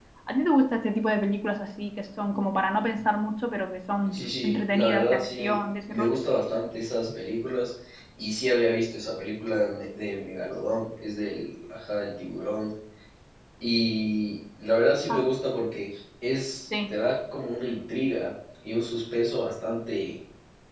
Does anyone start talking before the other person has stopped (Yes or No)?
Yes